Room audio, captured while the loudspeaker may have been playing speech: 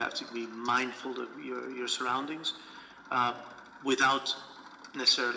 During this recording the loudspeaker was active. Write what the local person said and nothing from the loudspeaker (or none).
none